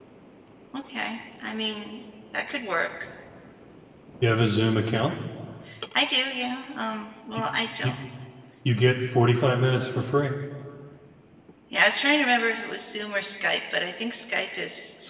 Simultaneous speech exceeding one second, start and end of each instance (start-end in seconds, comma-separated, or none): none